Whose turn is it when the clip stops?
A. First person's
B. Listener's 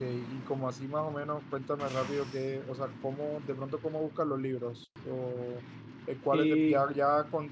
A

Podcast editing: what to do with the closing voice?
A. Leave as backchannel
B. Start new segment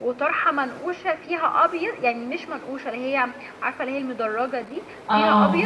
A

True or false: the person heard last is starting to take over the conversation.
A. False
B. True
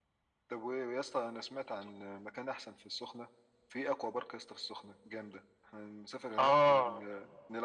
A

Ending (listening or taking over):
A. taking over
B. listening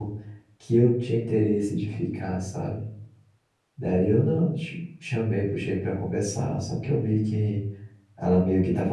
B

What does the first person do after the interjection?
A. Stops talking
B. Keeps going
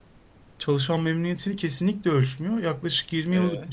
B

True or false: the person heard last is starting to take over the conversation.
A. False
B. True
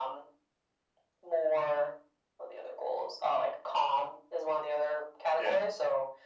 A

